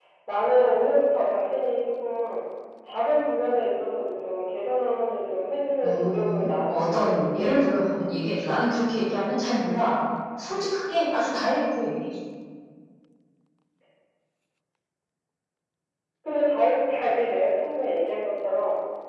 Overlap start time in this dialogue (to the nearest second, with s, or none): 6 s